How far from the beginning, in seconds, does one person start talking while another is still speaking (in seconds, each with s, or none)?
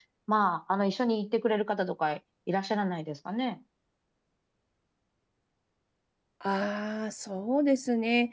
none